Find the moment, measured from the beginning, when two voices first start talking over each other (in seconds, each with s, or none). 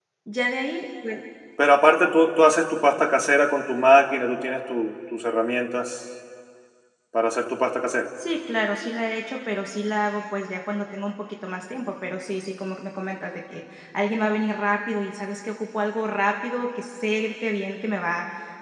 none